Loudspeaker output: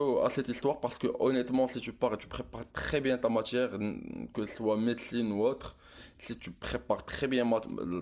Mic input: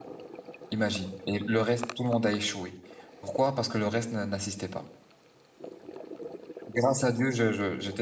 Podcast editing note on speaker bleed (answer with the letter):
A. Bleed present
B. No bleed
B